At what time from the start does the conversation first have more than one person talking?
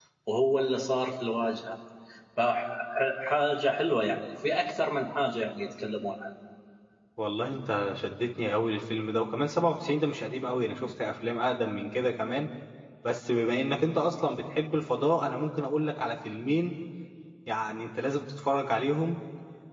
none

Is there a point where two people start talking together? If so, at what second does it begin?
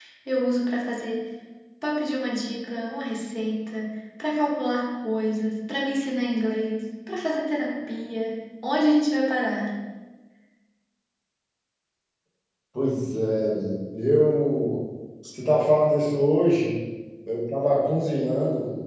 none

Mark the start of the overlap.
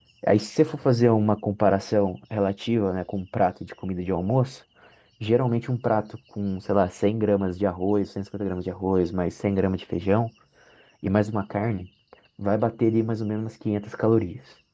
none

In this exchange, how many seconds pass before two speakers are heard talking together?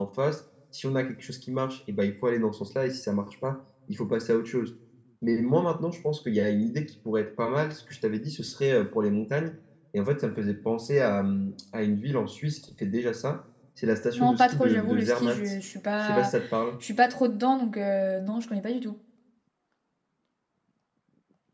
14 s

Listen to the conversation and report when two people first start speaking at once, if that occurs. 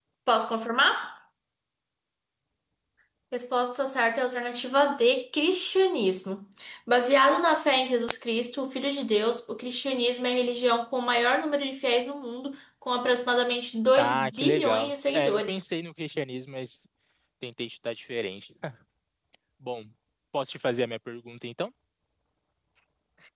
14 s

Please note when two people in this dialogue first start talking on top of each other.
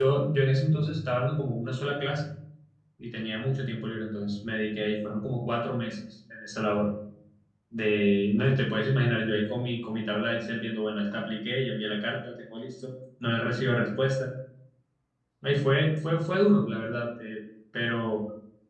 none

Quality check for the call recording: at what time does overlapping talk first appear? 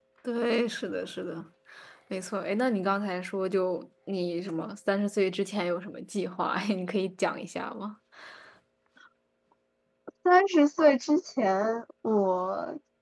none

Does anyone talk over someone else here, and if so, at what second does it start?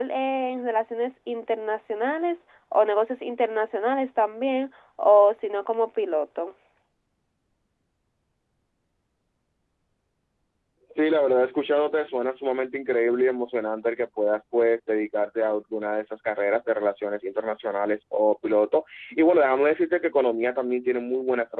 none

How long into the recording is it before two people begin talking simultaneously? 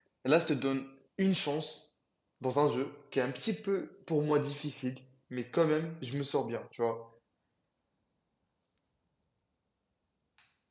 none

